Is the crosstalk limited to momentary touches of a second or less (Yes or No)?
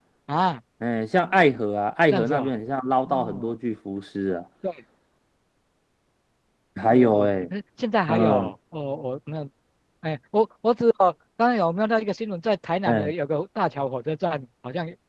Yes